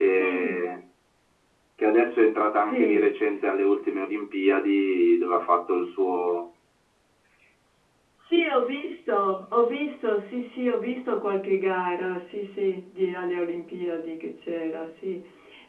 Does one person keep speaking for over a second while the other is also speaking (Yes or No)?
No